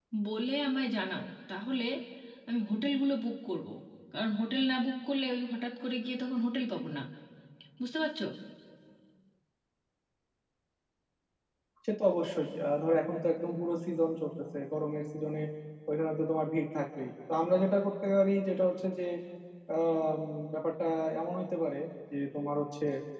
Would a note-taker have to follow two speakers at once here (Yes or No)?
No